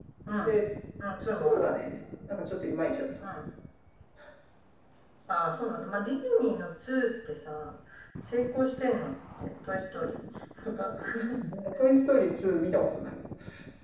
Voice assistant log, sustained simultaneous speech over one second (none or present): none